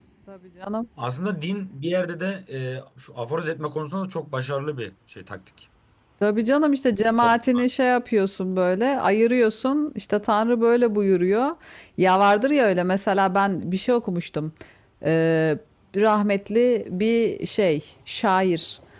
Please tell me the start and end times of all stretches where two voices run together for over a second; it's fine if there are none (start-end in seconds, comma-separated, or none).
none